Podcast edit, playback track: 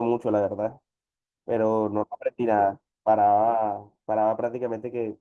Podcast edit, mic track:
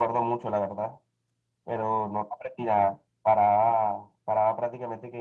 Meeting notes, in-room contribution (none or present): none